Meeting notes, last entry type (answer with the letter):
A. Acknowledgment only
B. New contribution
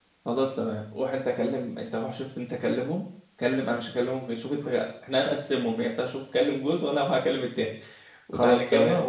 A